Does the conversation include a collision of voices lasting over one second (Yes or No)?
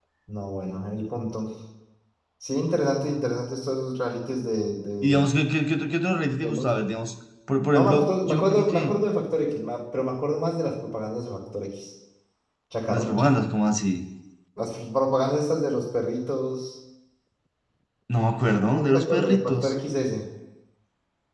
Yes